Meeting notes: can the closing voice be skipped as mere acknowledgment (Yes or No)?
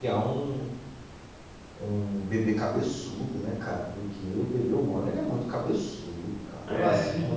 Yes